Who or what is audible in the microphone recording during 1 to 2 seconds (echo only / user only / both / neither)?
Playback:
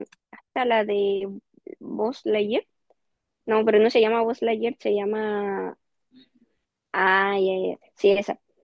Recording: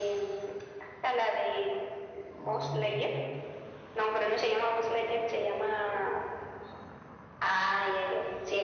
echo only